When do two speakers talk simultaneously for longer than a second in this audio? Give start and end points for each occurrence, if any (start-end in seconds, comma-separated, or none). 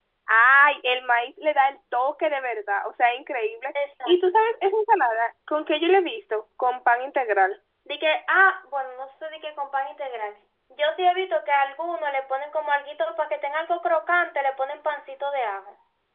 none